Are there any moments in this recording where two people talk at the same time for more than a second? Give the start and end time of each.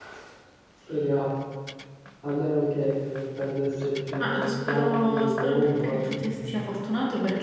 4.2-6.6

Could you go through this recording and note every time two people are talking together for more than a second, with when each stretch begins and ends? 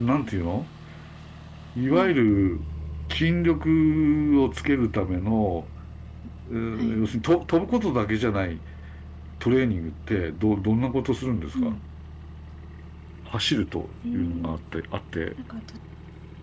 none

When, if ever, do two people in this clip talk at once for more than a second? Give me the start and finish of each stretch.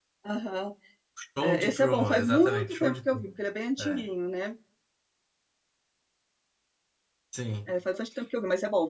1.4-3.3

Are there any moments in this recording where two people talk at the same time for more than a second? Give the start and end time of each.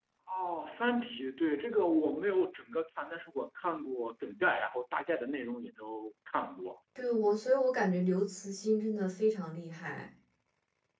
none

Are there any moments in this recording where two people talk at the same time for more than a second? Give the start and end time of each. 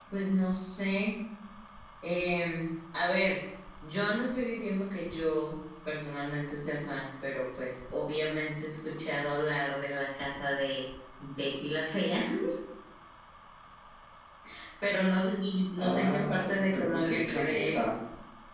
15.8-17.9

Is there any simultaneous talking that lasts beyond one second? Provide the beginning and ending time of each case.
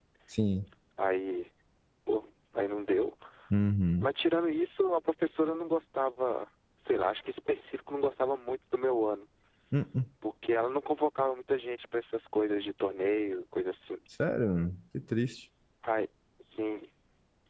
none

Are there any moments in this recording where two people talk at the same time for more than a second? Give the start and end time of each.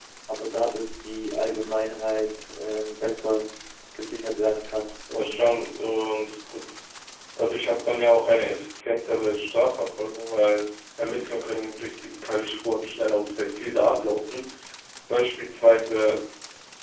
none

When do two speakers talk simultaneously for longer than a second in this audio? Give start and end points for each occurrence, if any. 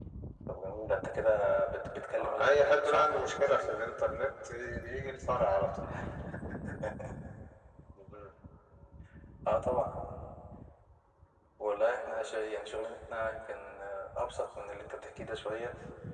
2.2-3.9

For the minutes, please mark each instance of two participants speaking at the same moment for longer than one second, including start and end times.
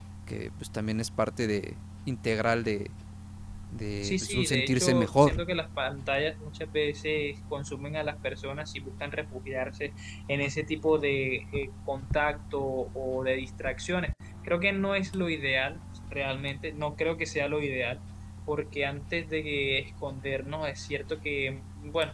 4.0-5.4

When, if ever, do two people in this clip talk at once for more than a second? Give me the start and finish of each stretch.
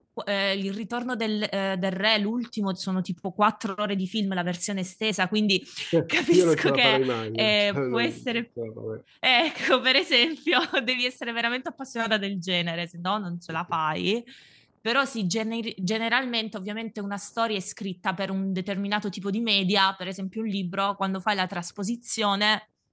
6.1-8.4

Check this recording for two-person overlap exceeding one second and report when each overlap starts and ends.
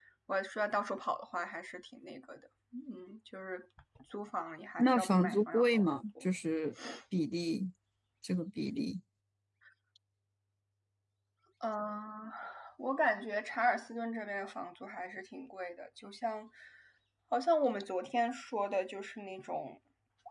4.8-6.2

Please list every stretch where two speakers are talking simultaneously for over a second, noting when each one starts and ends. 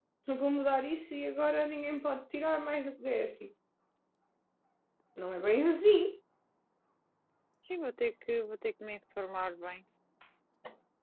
none

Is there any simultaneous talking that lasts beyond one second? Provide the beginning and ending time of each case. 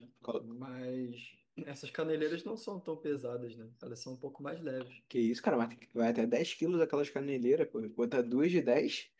none

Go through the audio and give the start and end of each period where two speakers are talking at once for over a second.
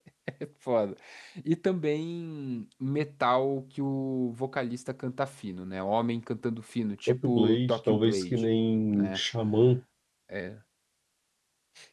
7.1-8.4

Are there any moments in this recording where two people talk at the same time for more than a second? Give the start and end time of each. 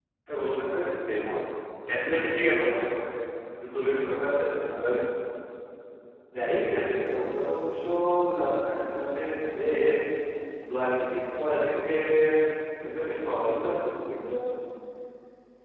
none

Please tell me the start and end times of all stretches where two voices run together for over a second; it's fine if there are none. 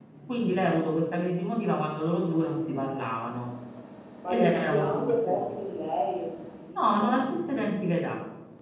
4.3-5.6

